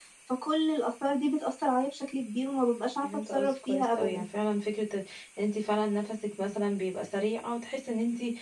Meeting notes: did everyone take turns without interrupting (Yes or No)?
No